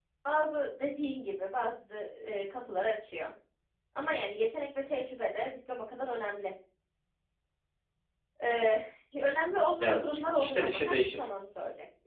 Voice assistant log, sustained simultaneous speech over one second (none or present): present